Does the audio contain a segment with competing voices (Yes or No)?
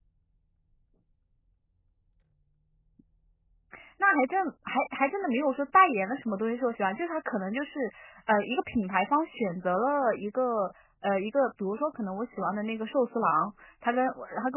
No